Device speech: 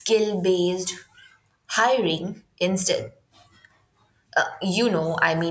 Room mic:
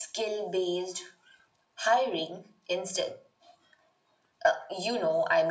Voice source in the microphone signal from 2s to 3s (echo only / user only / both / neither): echo only